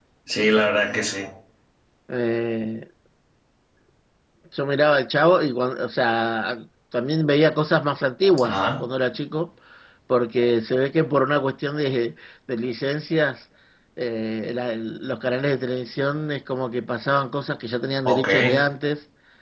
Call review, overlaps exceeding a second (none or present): none